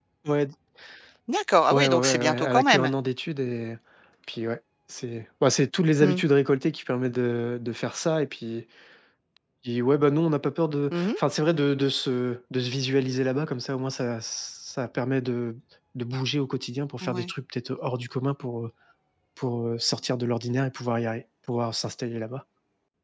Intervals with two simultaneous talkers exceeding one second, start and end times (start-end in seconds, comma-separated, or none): 1.7-2.9